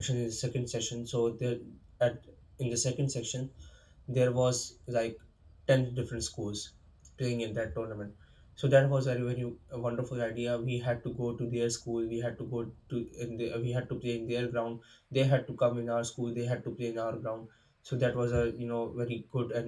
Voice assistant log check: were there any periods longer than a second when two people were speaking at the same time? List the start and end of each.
none

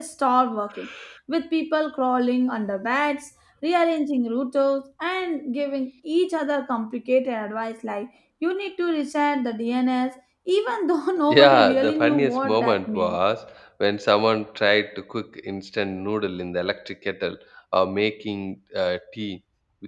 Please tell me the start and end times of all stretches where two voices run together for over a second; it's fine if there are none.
11.3-13.2

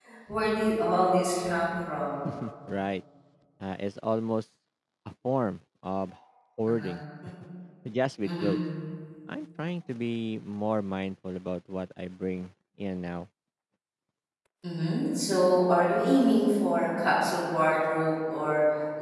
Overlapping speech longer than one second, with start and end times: none

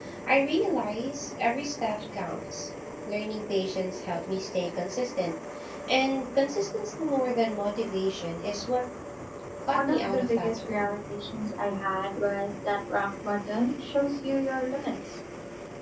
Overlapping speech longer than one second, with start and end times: 9.7-10.9

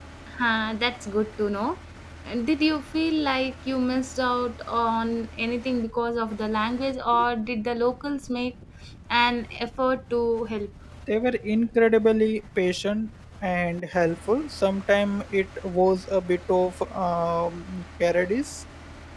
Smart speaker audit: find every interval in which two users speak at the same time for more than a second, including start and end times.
none

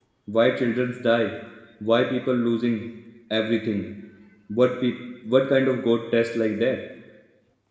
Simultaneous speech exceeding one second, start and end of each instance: none

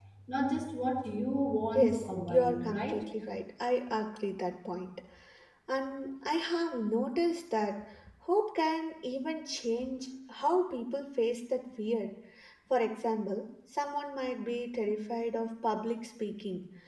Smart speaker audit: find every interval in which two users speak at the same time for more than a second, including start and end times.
1.7-3.0

